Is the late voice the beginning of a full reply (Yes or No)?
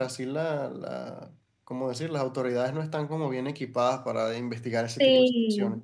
Yes